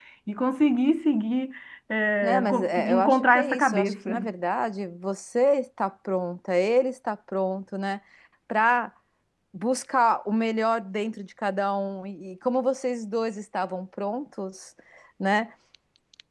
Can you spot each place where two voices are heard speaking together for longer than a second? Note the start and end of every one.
2.2-4.2

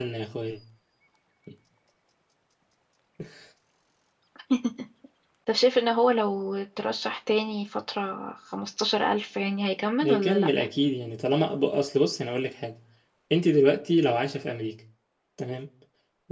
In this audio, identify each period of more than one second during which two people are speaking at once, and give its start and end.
none

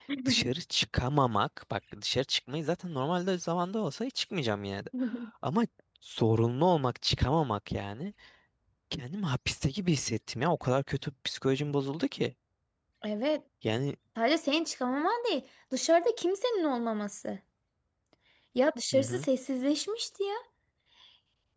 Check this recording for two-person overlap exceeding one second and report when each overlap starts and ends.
none

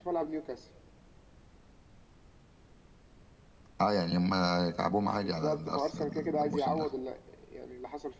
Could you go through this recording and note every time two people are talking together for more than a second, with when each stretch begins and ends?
5.2-6.9

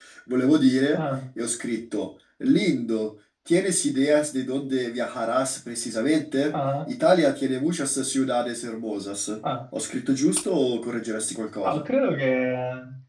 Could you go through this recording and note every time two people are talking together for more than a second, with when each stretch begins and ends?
none

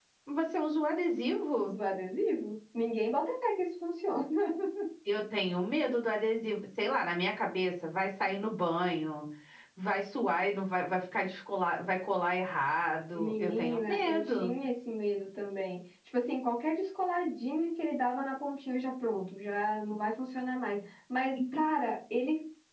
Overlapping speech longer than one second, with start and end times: 13.2-14.5

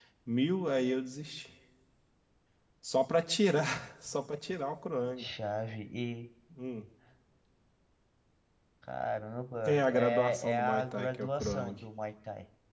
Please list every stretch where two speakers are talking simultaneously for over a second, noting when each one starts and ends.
9.7-11.8

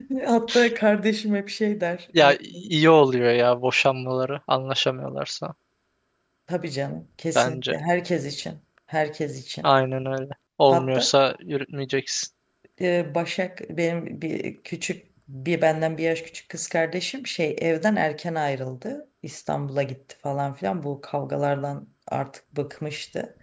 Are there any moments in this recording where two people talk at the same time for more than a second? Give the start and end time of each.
none

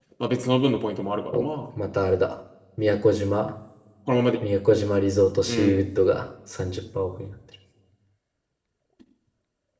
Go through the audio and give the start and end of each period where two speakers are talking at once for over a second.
none

